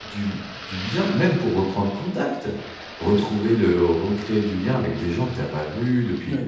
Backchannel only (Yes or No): No